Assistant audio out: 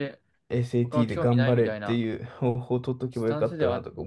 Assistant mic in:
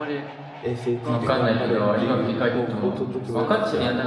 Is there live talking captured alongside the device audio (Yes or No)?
Yes